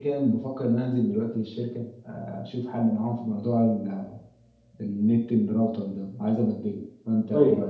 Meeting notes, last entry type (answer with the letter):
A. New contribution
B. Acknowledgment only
A